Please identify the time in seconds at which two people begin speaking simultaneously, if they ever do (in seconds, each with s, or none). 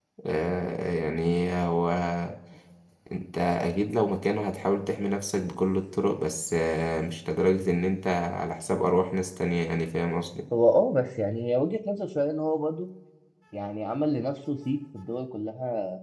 none